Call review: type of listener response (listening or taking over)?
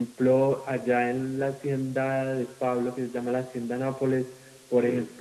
listening